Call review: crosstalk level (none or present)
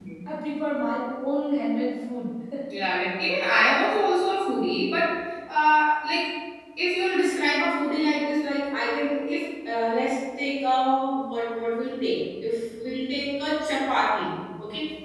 none